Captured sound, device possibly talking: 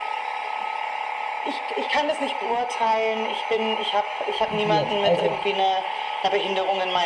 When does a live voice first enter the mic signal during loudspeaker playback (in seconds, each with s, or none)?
4.5 s